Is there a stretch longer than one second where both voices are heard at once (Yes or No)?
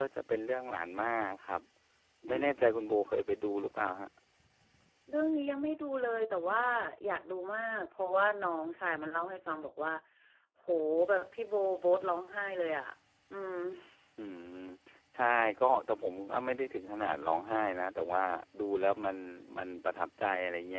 No